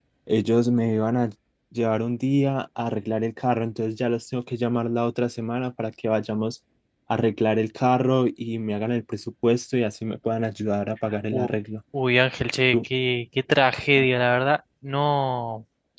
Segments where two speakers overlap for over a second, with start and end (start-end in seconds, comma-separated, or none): none